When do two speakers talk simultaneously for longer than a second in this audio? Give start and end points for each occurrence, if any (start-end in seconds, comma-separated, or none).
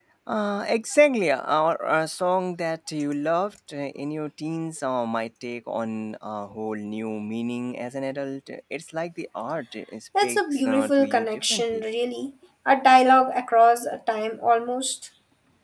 10.2-11.8